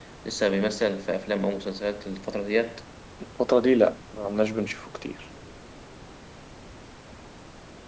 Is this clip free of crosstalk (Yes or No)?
Yes